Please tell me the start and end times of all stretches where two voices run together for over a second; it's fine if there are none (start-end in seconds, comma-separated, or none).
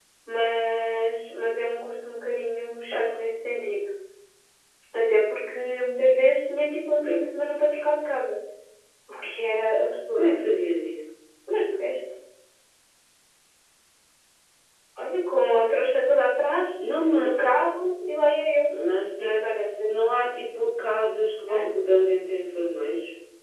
none